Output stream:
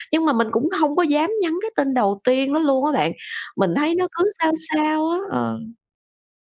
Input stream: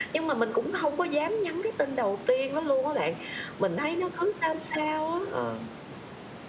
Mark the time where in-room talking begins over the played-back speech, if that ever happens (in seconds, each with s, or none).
none